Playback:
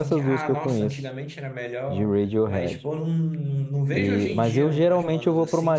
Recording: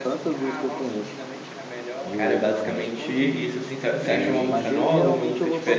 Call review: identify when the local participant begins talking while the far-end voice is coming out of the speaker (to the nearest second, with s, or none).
2 s